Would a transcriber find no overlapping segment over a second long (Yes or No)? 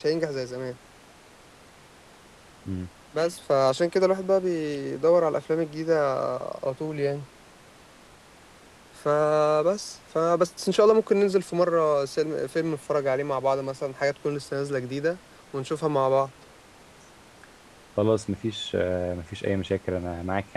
Yes